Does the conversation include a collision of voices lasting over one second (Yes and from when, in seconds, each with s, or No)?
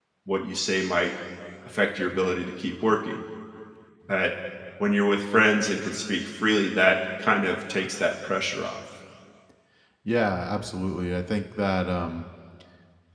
No